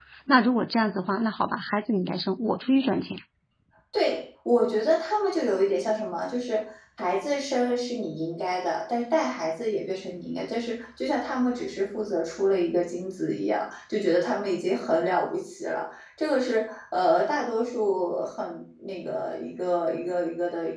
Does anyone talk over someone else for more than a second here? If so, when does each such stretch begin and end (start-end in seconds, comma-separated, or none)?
none